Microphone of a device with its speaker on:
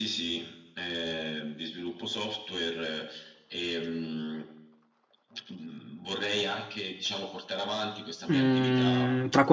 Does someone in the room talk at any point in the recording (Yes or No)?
Yes